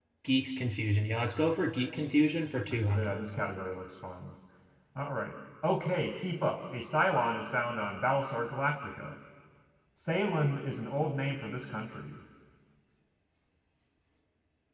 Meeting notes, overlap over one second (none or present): none